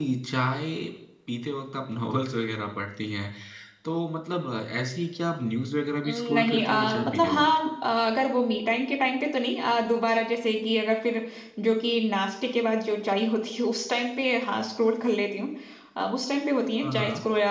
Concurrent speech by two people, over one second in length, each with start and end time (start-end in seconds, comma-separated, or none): 6.0-7.4